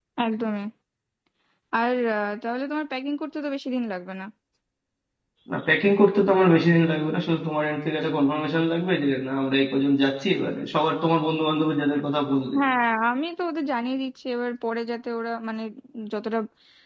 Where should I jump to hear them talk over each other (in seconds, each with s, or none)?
none